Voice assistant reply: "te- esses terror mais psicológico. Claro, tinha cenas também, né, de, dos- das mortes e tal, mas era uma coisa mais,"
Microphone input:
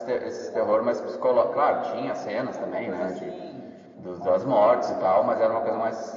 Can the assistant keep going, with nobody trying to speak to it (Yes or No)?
No